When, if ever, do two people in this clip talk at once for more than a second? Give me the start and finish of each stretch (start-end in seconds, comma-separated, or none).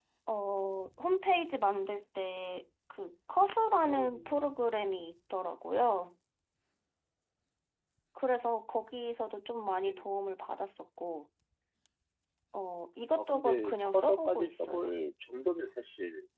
13.2-14.8